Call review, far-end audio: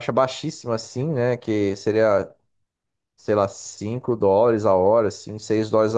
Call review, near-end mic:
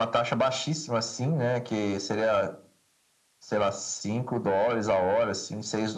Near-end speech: none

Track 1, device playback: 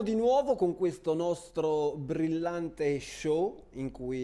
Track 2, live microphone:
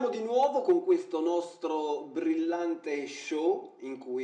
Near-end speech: none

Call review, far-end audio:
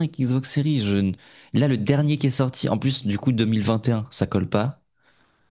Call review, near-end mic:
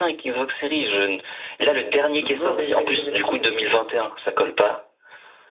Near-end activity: present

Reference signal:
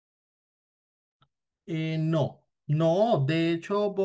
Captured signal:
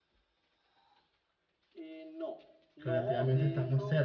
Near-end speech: present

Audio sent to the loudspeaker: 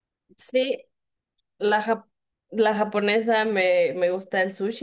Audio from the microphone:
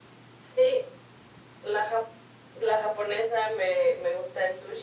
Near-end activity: none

